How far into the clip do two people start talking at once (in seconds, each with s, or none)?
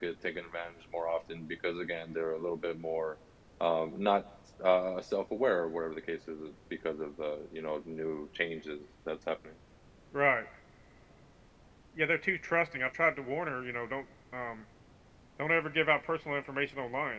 none